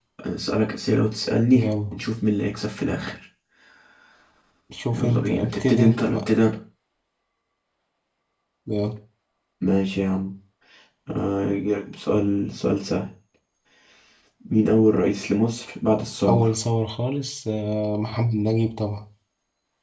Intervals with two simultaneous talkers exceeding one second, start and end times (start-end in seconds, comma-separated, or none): 4.9-6.2